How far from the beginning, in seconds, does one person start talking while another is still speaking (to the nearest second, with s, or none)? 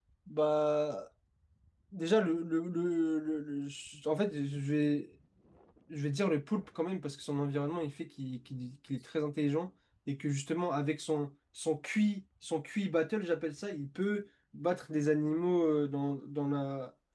none